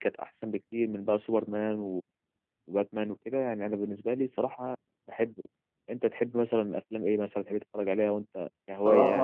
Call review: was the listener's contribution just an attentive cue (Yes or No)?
No